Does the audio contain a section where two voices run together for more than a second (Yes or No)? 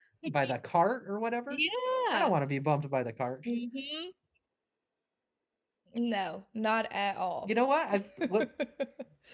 No